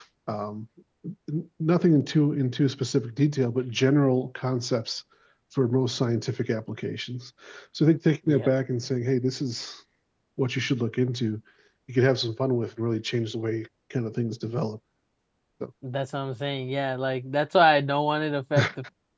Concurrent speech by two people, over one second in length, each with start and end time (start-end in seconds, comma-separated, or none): none